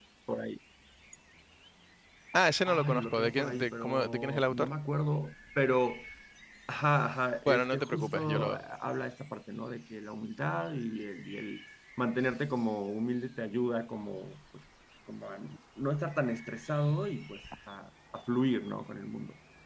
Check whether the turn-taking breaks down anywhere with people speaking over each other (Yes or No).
Yes